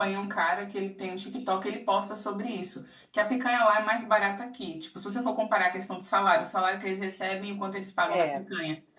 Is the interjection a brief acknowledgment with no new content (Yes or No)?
Yes